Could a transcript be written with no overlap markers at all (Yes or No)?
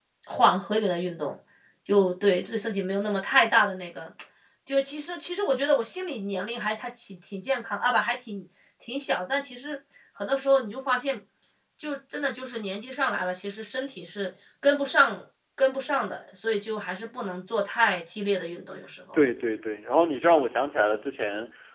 Yes